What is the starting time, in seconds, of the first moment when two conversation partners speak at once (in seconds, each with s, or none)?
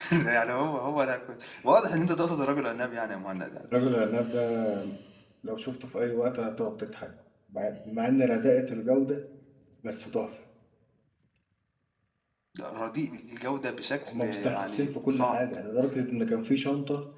14.0 s